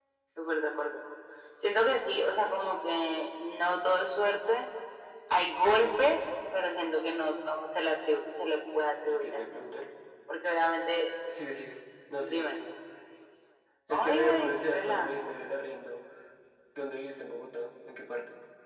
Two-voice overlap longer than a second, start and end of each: 13.9-15.1

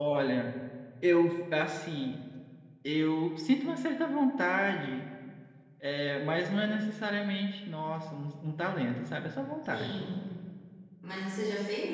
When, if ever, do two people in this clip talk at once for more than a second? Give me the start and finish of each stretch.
none

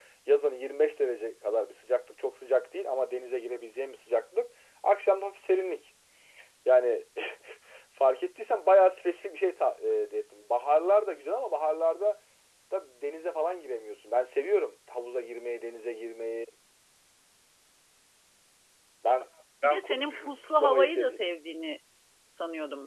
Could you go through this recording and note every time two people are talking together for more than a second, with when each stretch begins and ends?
19.6-21.2

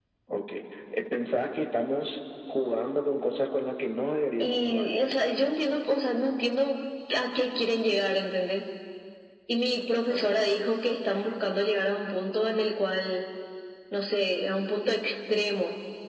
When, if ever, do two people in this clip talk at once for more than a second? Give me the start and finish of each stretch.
none

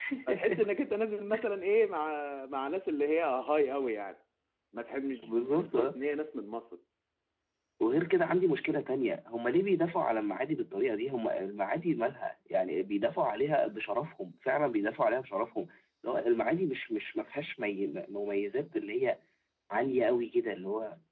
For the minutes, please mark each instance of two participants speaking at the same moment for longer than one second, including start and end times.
none

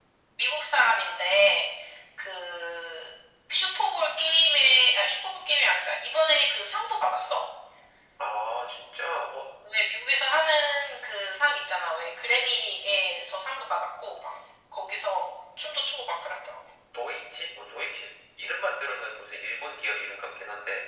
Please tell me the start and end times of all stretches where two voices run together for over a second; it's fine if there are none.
none

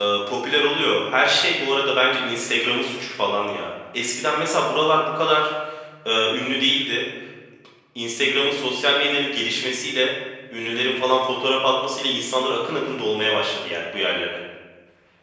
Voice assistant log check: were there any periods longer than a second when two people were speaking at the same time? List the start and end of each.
none

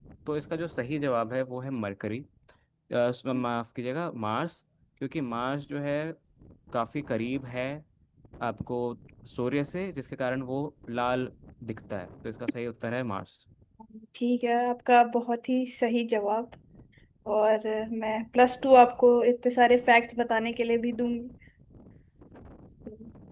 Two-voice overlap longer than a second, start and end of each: none

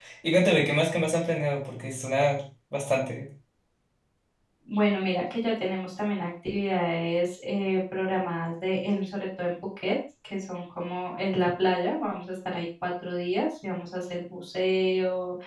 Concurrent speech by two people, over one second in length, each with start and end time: none

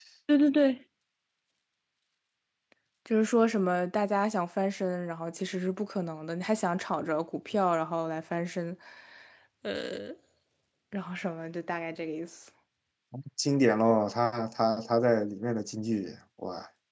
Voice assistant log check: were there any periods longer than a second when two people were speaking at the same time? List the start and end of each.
none

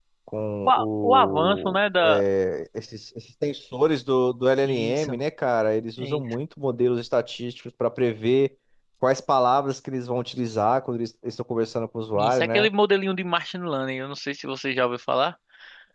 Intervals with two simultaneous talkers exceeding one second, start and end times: 0.6-2.2

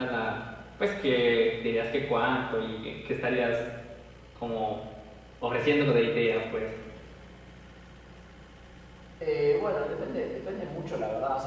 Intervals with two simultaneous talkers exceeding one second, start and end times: none

